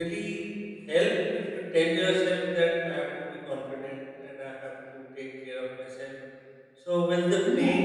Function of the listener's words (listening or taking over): listening